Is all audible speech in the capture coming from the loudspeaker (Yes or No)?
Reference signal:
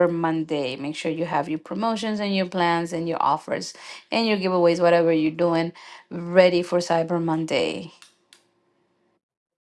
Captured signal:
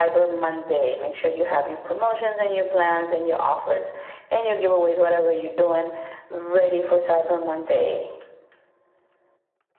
Yes